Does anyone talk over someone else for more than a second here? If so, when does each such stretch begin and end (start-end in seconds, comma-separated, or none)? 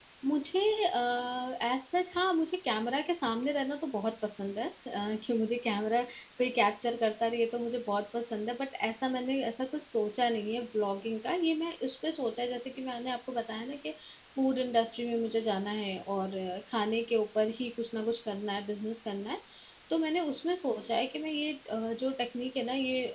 none